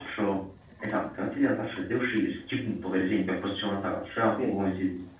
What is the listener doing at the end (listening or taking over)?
listening